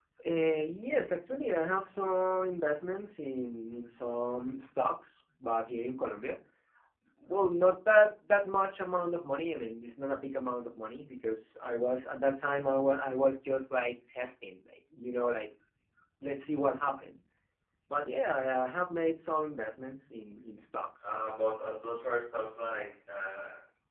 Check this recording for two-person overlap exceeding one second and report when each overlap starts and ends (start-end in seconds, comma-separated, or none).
none